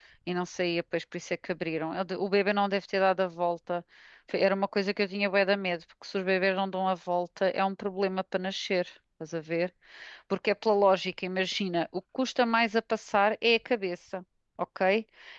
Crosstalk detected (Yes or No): No